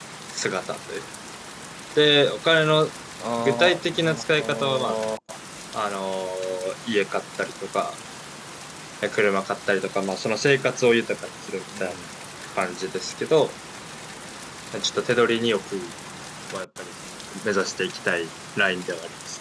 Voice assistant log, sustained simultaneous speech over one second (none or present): present